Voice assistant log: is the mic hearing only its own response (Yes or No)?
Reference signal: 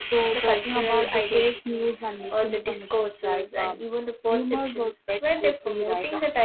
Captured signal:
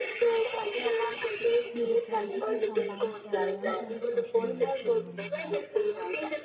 No